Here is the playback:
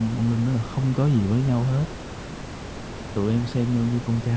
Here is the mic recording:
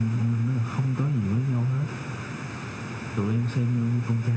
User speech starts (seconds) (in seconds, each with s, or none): none